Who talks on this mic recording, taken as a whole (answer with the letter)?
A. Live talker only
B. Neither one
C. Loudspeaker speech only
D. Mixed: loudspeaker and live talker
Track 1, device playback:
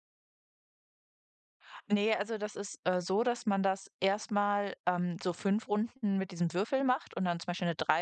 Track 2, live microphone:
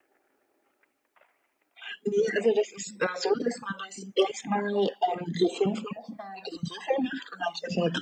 C